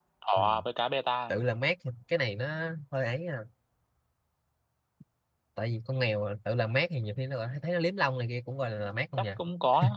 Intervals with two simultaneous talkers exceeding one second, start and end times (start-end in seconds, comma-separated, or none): none